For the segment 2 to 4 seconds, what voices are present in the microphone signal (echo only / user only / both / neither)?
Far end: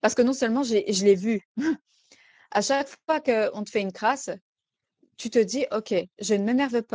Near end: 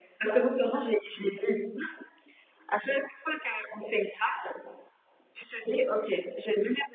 echo only